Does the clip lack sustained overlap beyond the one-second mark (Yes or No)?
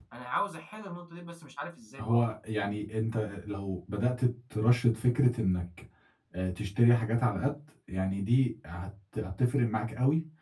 Yes